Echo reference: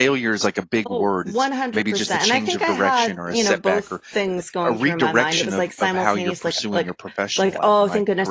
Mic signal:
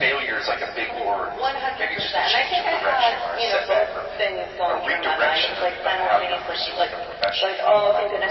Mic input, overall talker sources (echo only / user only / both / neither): echo only